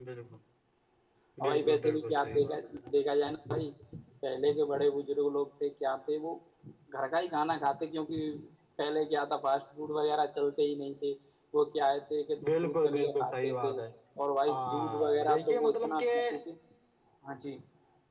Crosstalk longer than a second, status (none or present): present